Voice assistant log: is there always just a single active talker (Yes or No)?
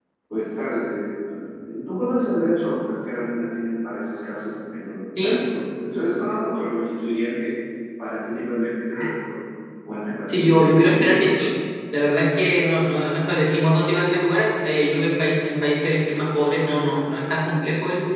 No